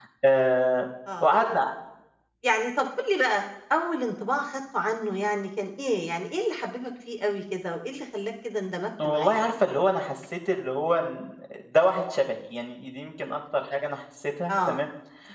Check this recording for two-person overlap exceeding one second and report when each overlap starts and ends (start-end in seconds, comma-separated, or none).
none